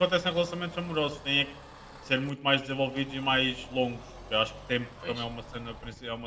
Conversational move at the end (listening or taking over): listening